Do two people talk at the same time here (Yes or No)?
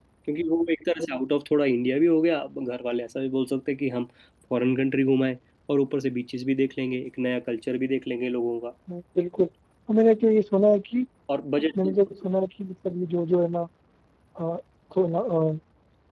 No